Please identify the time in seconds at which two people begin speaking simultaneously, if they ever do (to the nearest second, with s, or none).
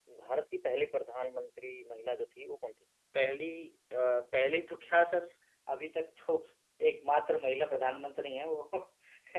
none